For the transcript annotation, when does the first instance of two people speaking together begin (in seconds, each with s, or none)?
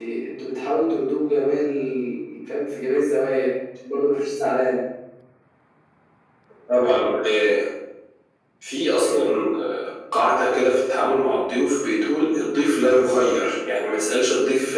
none